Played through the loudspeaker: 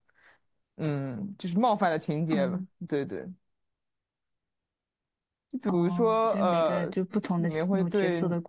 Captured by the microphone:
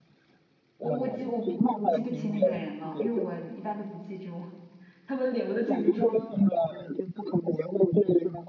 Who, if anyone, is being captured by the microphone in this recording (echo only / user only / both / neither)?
both